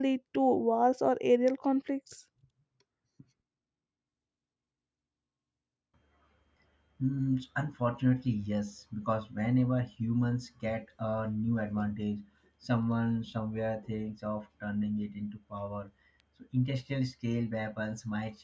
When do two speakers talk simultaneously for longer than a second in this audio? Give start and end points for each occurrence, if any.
none

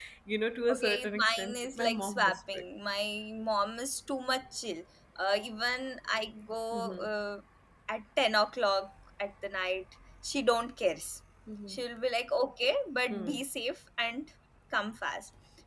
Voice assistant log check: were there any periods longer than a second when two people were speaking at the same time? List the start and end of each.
0.7-2.6

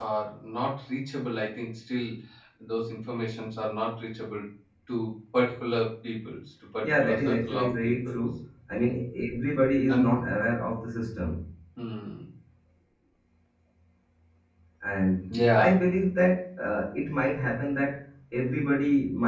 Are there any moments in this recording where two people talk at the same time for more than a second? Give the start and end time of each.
6.8-8.2

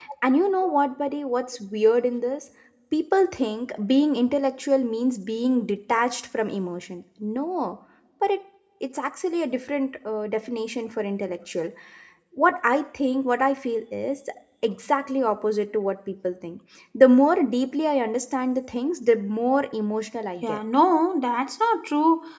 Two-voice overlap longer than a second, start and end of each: none

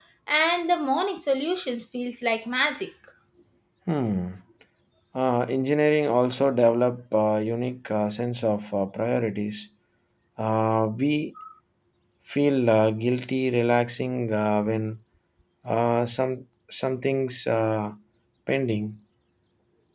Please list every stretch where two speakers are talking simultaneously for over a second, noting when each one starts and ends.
none

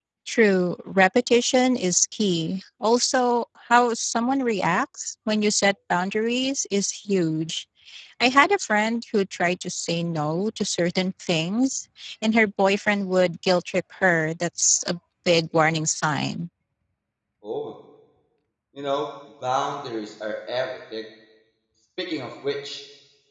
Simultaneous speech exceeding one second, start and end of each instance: none

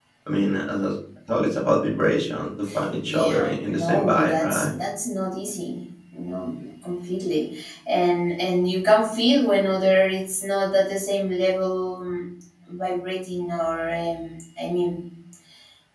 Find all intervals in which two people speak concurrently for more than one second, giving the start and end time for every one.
3.1-4.7

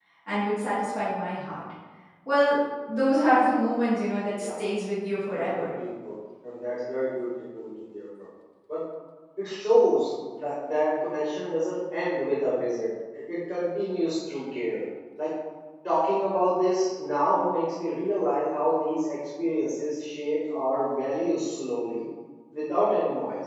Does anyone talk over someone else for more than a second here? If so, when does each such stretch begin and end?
none

